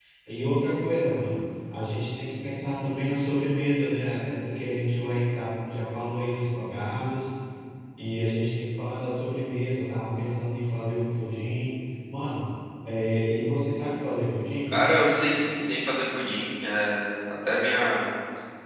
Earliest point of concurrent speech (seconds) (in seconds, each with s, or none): none